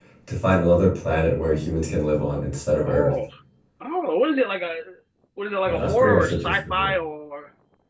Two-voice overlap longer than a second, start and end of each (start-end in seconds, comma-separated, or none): 5.7-6.9